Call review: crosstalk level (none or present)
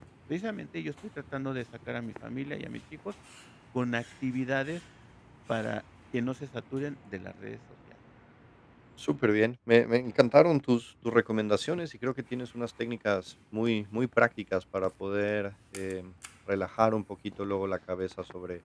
none